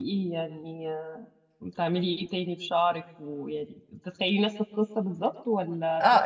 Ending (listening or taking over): taking over